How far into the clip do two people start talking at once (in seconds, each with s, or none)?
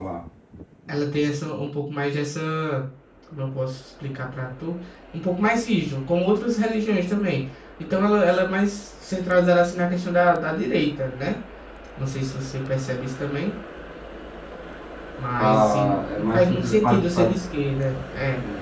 15.4 s